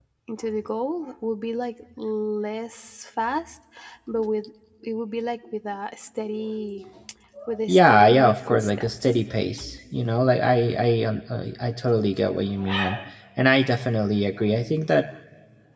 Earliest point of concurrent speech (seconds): 7.7 s

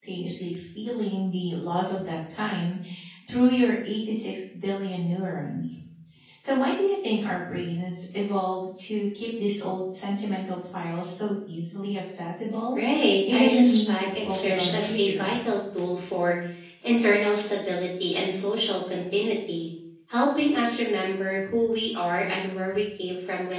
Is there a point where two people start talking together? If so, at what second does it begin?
13.2 s

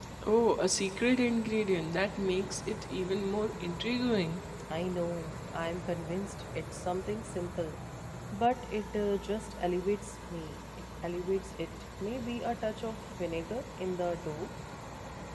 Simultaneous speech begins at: none

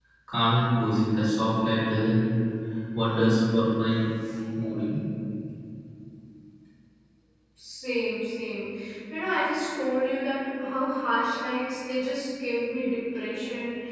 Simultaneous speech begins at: none

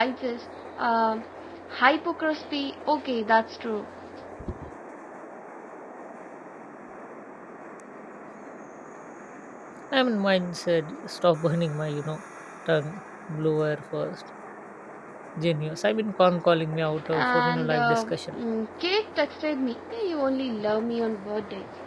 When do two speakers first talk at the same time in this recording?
17.1 s

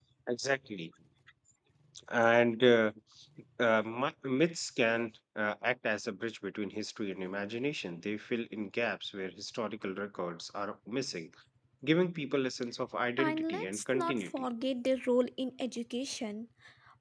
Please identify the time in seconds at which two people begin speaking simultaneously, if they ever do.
13.2 s

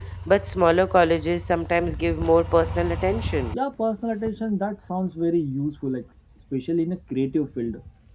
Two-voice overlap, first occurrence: none

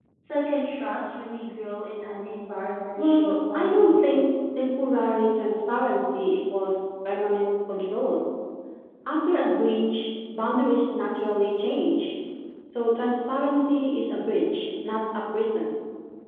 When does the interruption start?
3.0 s

